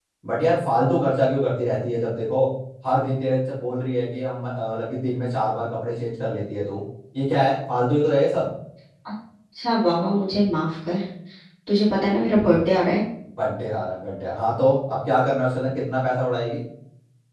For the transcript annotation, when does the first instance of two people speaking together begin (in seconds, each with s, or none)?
none